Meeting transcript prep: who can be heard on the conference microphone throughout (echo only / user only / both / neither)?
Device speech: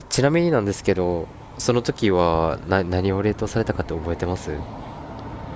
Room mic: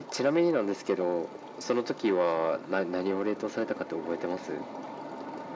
echo only